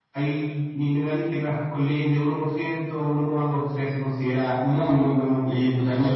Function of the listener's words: taking over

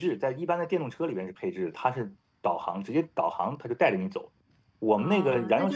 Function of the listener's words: taking over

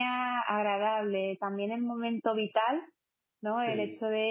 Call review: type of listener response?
listening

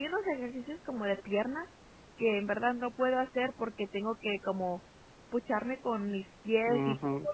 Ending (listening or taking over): taking over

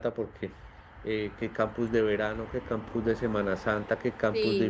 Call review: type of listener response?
listening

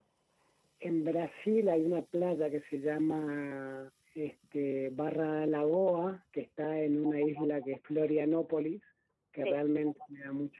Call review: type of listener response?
listening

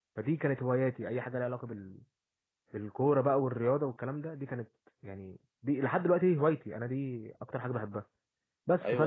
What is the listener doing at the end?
taking over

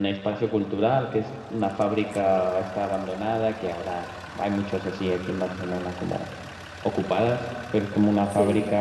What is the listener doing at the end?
listening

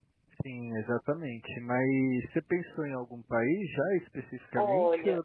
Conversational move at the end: taking over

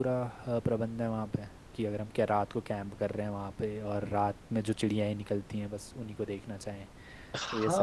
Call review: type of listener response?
taking over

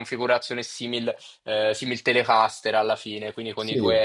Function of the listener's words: listening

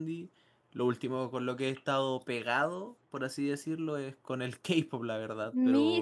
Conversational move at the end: taking over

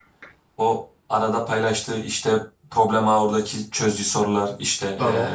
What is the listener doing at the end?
listening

